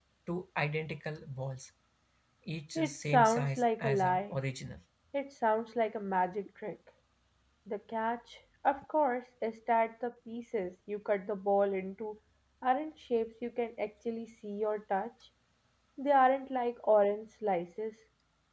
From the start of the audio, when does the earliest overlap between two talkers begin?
2.8 s

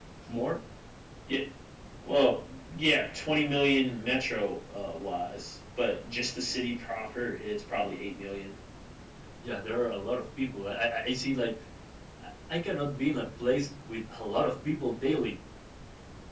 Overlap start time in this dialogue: none

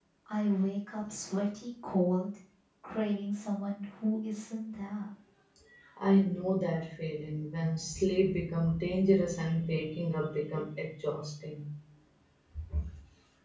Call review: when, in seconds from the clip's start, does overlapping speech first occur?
none

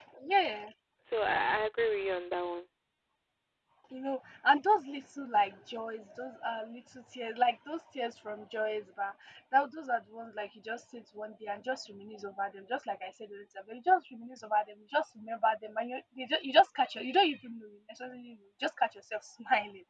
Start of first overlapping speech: none

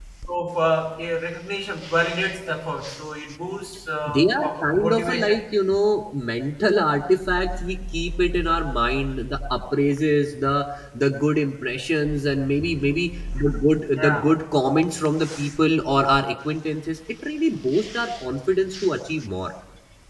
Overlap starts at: 4.0 s

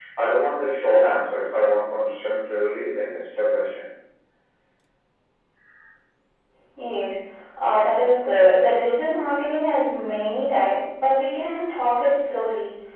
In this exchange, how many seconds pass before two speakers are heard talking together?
none

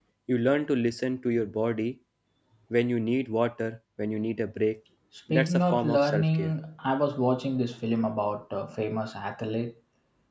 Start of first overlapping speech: 5.3 s

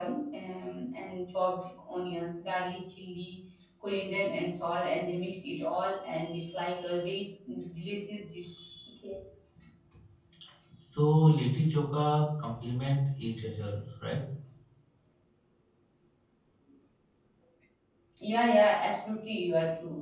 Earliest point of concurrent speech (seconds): none

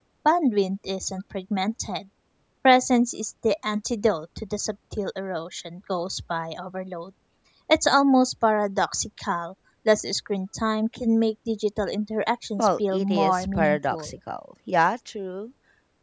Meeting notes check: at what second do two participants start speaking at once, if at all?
12.6 s

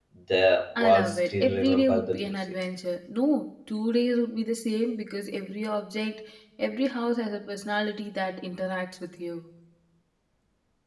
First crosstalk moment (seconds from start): 0.8 s

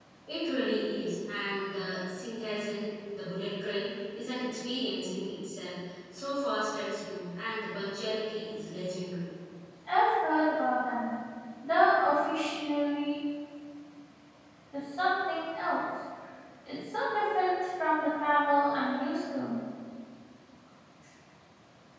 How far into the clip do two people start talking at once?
none

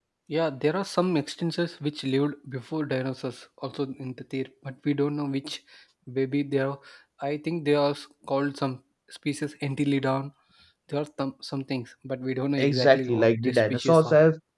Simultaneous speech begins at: 12.6 s

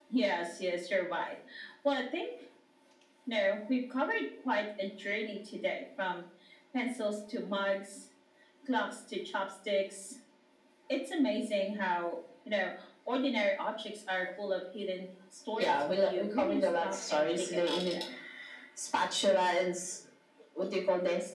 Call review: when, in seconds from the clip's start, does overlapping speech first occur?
15.6 s

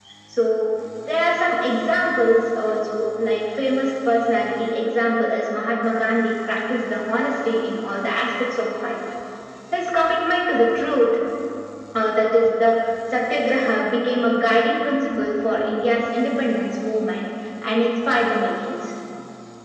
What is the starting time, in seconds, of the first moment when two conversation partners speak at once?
none

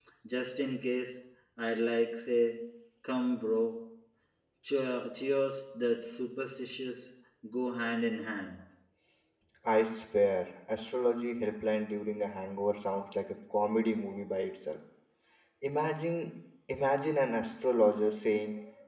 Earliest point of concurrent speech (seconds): none

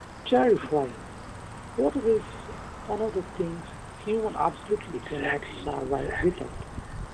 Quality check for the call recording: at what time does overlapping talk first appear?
4.9 s

